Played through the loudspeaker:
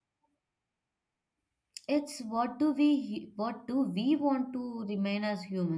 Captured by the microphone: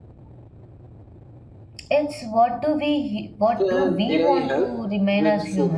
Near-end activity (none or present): present